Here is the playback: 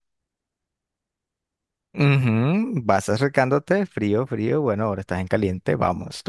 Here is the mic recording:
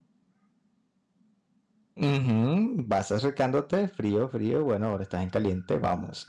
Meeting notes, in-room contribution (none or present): none